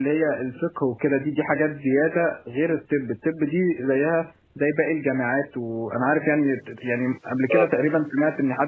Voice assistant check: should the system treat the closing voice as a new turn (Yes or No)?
No